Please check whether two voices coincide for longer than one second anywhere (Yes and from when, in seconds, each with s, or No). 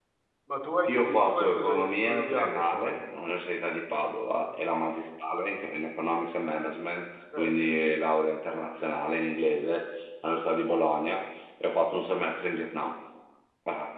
Yes, from 0.9 s